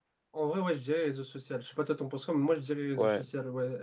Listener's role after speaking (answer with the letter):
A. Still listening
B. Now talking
B